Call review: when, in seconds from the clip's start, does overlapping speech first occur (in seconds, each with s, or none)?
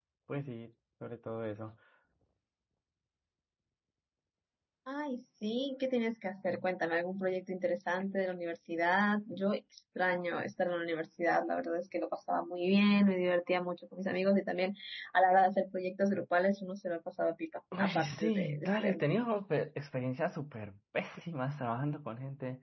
17.7 s